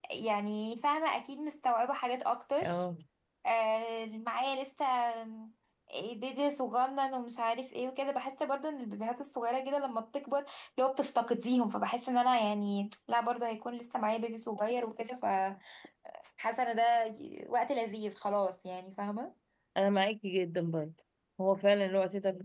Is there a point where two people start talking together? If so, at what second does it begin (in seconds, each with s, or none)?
none